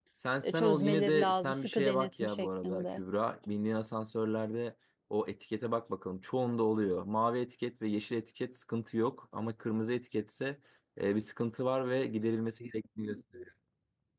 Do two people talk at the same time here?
Yes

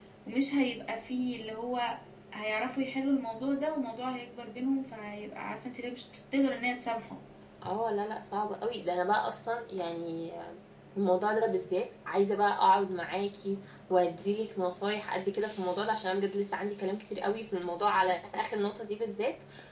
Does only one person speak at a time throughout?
Yes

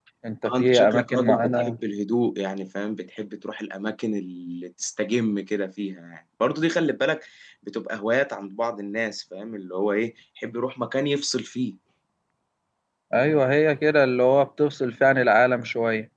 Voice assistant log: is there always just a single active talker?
No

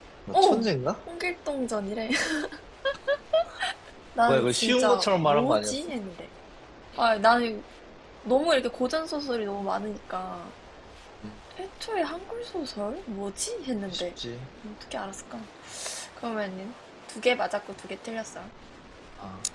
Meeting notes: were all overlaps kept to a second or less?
No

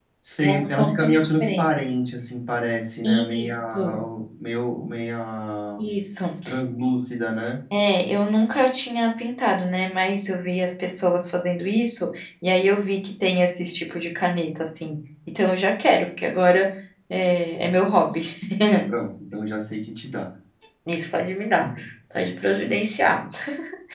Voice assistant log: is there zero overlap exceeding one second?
No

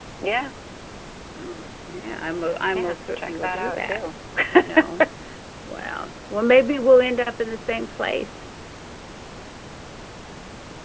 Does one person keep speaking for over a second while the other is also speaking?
Yes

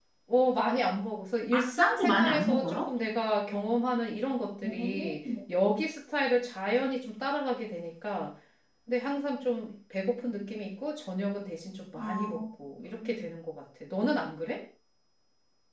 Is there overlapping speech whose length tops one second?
Yes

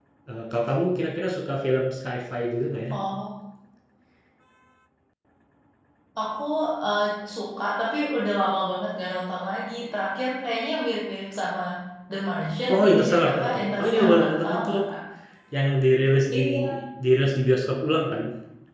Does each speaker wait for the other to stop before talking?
No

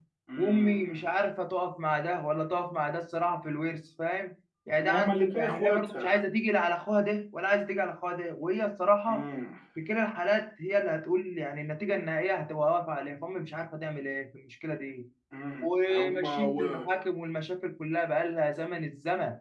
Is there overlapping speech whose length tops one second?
Yes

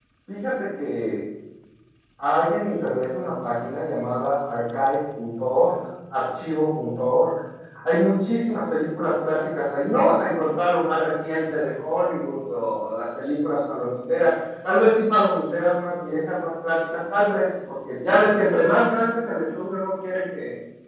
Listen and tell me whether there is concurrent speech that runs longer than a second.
No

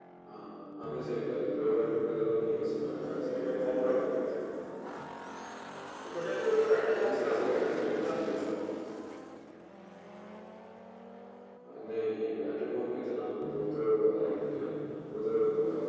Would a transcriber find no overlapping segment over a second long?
No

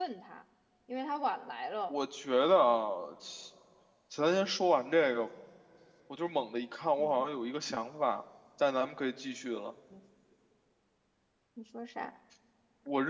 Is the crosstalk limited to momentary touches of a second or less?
Yes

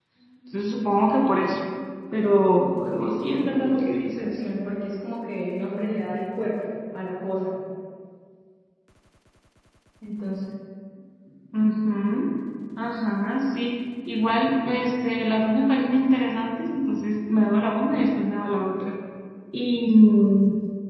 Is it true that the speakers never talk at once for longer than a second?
No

